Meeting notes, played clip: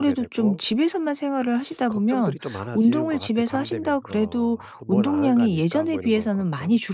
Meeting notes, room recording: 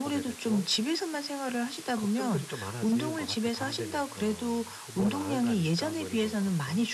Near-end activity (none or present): none